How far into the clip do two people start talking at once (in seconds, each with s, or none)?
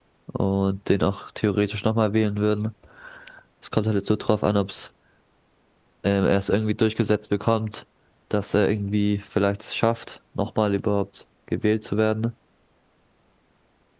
none